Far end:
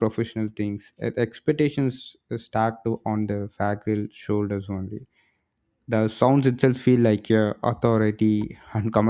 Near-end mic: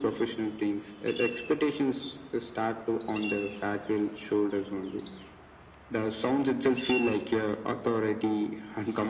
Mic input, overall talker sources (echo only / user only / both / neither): echo only